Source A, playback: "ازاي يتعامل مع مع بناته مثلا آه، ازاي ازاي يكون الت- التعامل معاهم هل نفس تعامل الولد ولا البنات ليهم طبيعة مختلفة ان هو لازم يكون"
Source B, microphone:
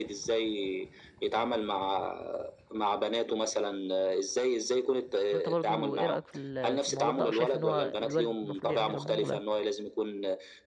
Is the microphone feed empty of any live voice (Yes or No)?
No